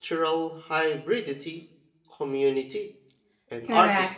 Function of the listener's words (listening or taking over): taking over